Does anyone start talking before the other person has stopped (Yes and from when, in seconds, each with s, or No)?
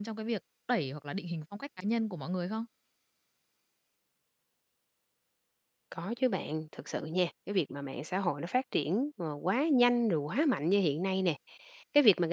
No